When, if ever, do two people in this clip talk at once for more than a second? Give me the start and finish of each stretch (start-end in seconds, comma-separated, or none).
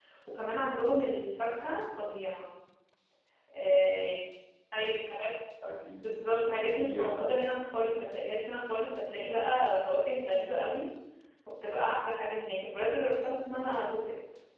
6.0-7.4